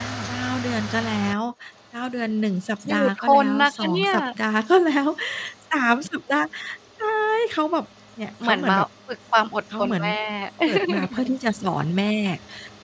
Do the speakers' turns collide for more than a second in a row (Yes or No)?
Yes